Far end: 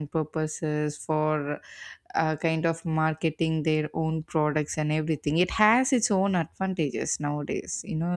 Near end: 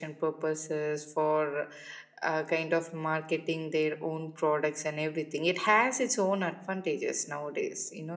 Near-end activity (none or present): none